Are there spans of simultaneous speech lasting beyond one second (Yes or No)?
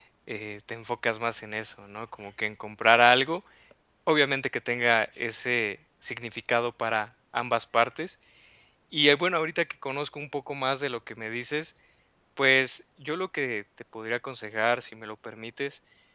No